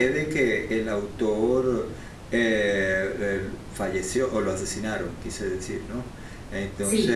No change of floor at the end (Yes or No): No